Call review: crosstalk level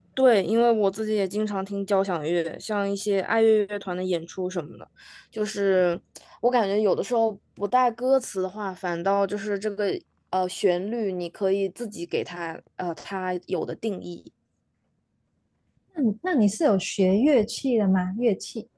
none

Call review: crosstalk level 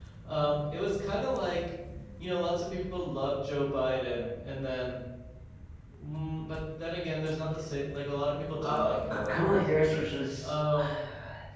present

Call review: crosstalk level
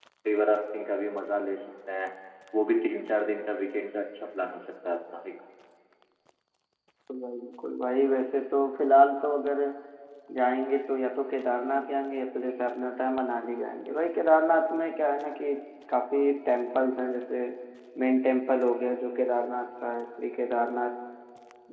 none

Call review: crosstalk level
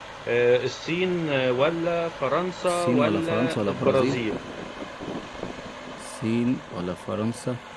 present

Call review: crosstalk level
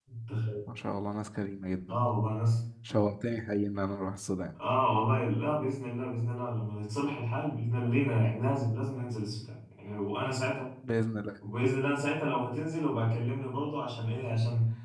none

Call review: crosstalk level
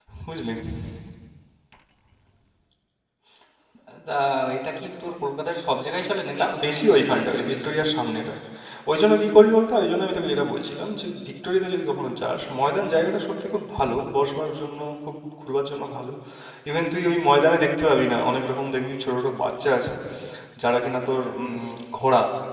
present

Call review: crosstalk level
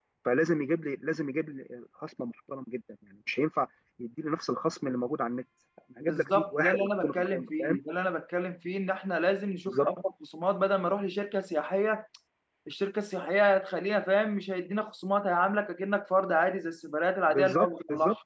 present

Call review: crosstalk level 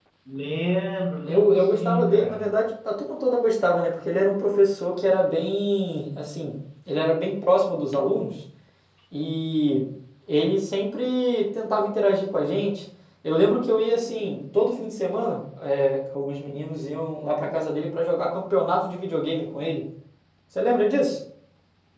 present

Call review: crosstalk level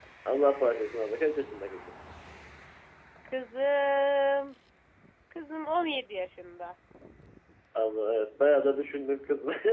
none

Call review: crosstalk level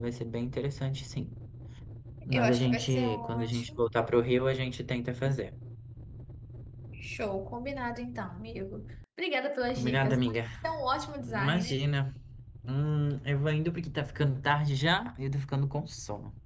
present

